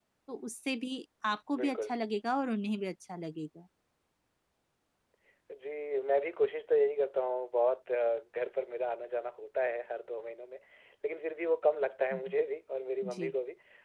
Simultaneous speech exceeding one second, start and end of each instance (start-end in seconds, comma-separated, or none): none